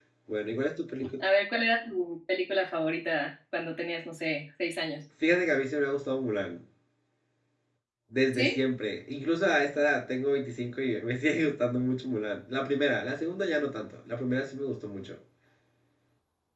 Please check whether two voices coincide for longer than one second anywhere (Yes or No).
No